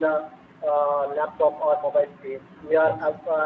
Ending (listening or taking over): listening